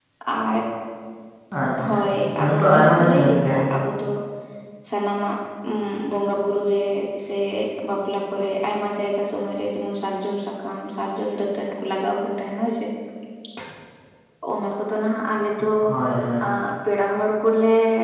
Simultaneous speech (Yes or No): Yes